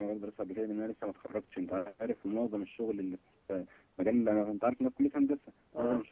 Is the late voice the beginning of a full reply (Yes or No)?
No